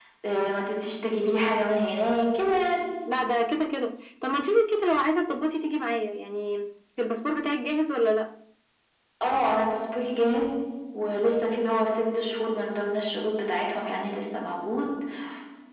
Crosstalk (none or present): none